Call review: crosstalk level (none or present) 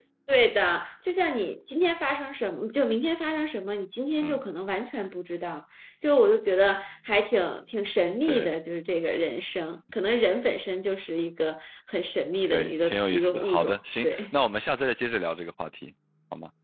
present